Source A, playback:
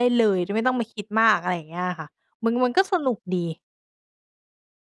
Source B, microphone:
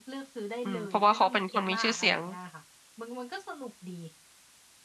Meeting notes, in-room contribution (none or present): present